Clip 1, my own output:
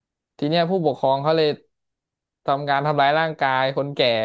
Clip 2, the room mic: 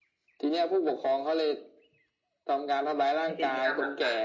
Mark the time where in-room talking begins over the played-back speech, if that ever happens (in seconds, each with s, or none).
3.2 s